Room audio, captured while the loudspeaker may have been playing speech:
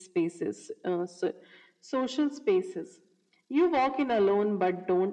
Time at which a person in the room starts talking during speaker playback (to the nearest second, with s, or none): none